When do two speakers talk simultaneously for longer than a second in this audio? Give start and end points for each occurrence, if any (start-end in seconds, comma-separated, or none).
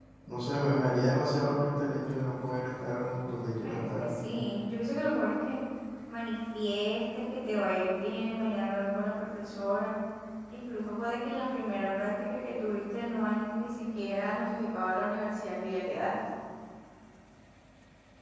none